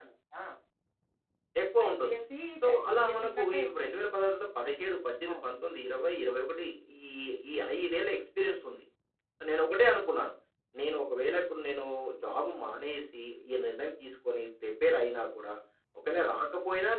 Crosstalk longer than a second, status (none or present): present